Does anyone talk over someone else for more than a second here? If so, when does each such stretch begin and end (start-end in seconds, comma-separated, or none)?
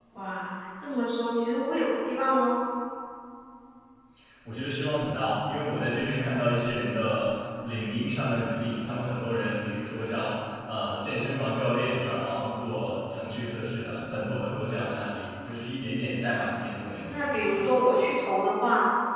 none